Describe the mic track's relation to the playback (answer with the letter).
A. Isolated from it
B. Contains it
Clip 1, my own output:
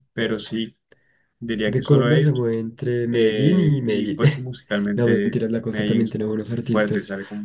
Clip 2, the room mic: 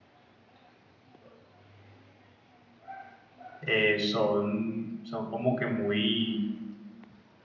A